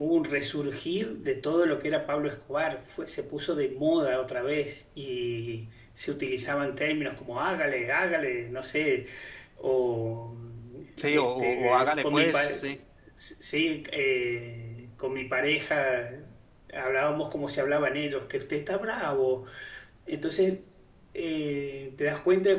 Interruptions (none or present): present